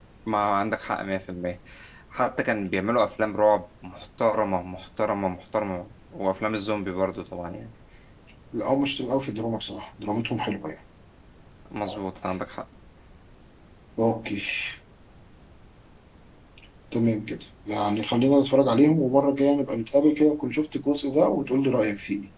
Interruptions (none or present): none